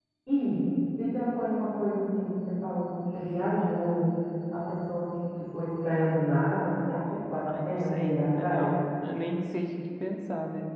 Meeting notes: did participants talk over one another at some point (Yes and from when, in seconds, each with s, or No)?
Yes, from 7.5 s